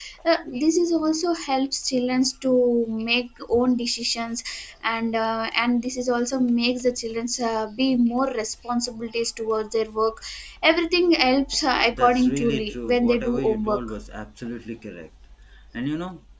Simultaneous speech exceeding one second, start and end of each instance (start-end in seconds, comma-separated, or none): 11.9-13.8